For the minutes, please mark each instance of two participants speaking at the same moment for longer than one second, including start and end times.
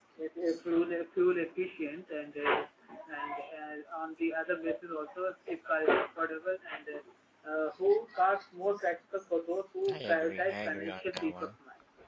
9.9-11.6

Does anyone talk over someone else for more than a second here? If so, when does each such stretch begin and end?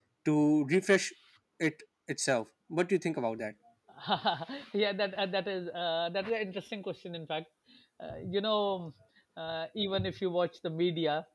none

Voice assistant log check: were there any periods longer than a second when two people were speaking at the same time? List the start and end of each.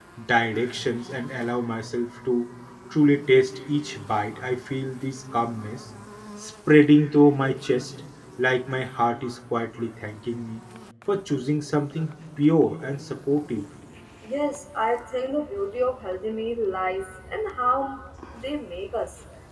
none

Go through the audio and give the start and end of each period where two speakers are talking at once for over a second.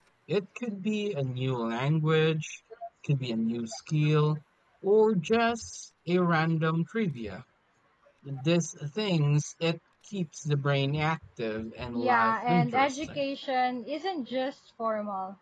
11.9-13.2

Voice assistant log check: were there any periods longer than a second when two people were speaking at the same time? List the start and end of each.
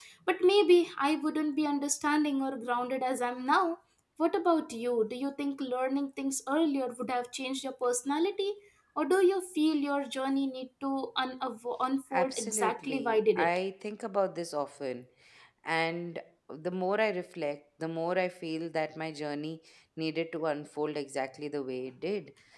12.1-13.6

